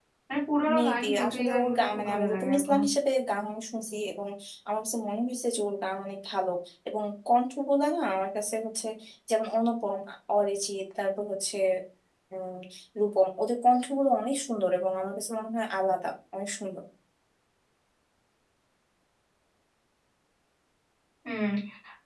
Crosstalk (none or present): present